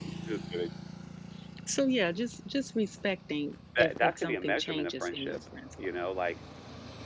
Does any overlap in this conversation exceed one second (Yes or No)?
Yes